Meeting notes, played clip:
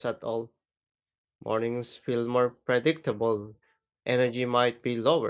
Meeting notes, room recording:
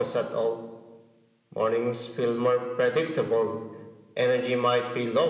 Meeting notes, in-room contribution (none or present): none